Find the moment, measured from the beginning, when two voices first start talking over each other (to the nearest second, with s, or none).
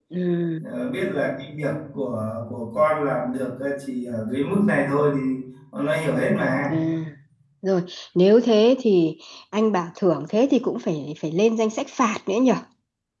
none